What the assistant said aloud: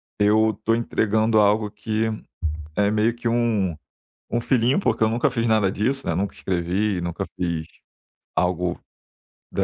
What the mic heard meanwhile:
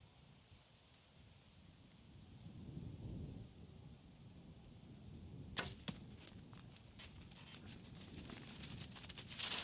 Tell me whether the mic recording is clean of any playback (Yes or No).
Yes